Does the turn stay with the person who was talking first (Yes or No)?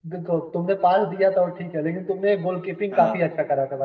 Yes